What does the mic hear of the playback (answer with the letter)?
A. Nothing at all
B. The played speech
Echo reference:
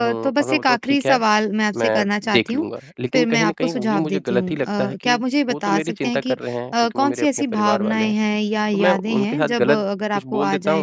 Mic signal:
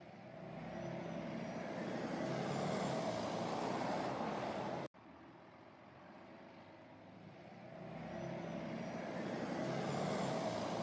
A